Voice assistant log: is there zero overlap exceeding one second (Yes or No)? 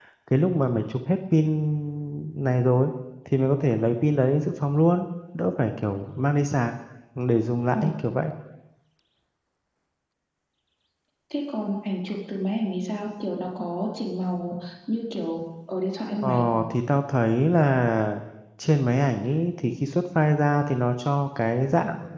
Yes